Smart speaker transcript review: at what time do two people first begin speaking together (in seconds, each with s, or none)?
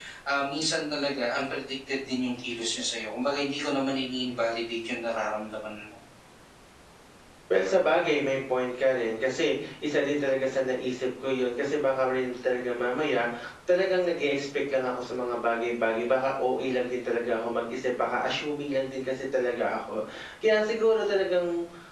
none